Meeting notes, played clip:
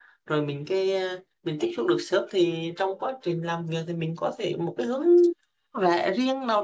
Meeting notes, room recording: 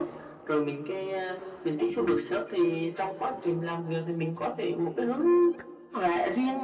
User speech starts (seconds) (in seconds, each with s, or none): none